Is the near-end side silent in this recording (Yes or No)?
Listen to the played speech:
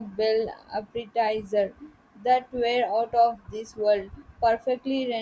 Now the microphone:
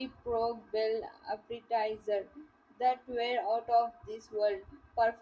Yes